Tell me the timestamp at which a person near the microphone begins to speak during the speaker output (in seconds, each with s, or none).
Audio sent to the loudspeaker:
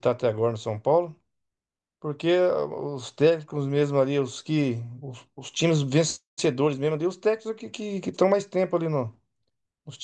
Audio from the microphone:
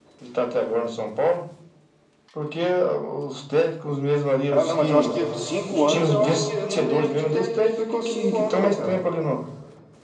4.5 s